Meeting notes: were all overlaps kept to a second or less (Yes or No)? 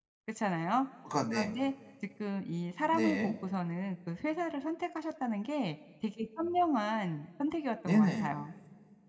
Yes